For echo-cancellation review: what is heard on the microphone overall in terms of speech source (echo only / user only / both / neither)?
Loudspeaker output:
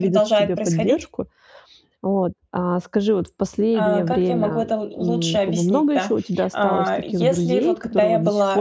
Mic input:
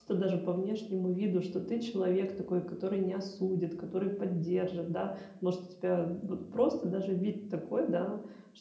user only